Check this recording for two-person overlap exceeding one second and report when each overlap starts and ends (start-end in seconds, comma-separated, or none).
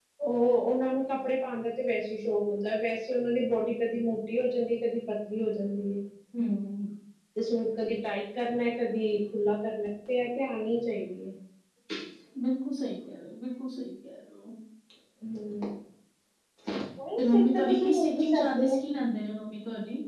17.2-18.8